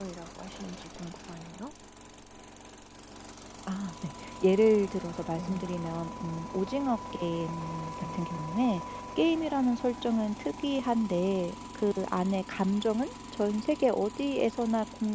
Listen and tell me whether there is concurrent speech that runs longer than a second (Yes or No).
No